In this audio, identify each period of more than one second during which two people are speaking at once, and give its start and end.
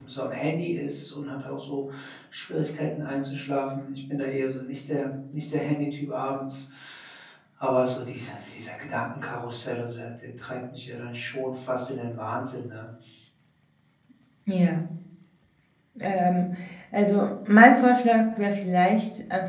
none

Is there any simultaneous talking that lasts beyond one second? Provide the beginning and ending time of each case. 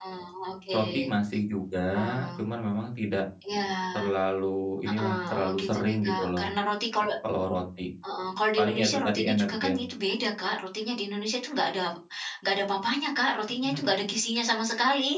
4.8-6.4, 8.6-9.8

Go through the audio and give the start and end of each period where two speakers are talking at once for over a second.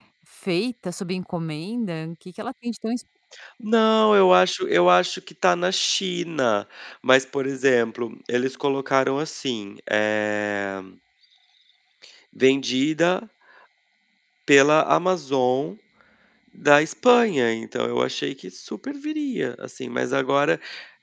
none

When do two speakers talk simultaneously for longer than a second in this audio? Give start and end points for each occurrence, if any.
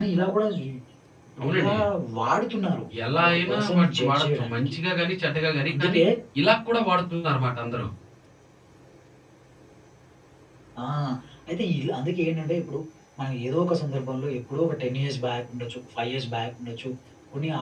3.3-4.7

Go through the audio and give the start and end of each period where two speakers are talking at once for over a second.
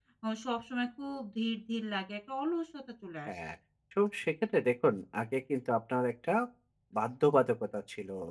none

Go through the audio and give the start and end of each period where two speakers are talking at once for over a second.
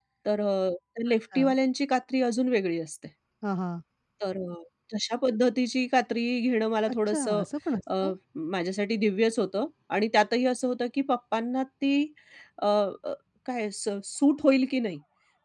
none

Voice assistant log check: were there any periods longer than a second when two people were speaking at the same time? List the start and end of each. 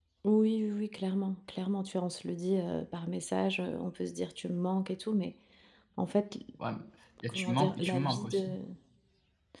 7.3-8.6

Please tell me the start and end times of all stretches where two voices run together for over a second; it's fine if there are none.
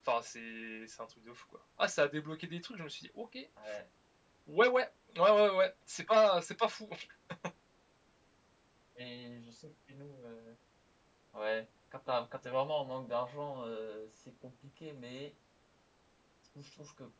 none

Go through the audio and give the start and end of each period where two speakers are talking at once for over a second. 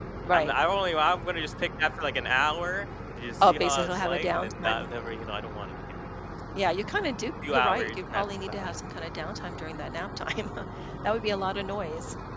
3.4-4.9, 7.5-8.8

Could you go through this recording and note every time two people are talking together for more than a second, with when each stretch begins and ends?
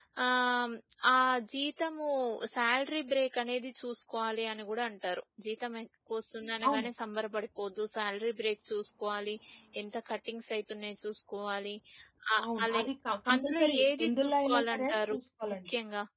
13.3-15.2

